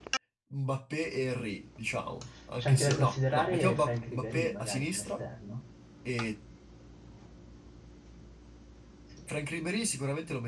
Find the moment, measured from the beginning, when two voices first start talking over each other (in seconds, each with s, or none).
2.6 s